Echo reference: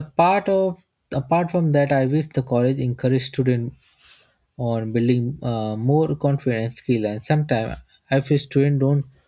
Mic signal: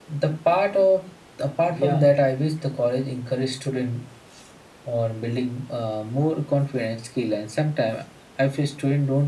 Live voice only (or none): Yeah,